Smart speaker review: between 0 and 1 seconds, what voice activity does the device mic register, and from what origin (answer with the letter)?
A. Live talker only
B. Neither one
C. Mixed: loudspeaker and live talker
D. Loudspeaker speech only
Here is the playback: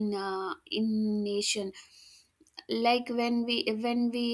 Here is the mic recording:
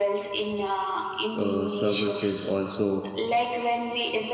D